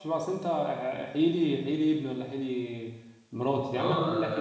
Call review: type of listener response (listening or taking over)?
taking over